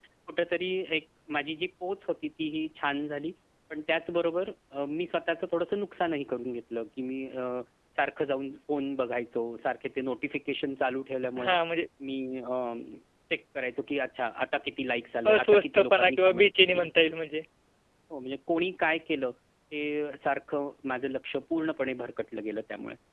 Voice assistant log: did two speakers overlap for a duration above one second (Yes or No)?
Yes